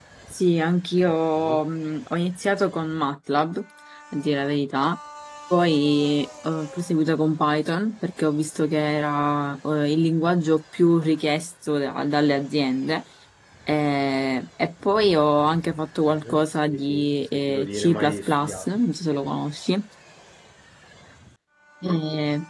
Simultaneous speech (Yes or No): Yes